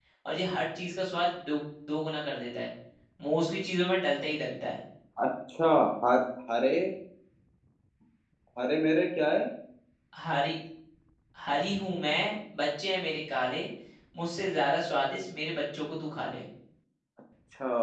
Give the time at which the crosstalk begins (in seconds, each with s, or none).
none